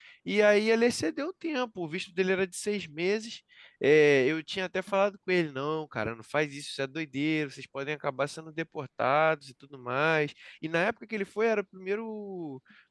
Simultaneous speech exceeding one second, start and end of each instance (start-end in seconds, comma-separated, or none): none